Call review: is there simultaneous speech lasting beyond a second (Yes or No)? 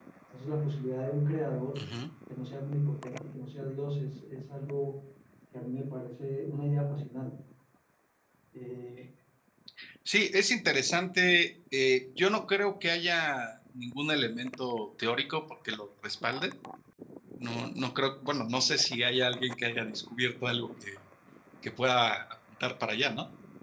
No